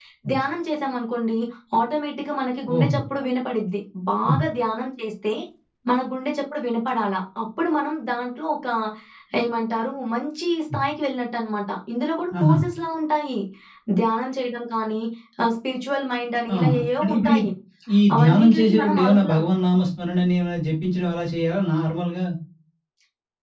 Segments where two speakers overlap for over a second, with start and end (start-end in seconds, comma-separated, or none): 18.2-19.4